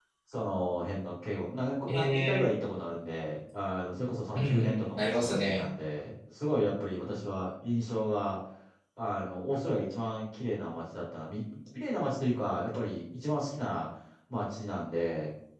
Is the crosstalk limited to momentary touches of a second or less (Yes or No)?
No